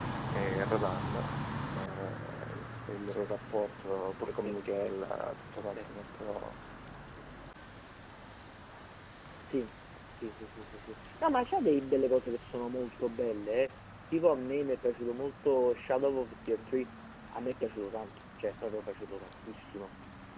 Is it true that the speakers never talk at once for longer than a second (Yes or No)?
Yes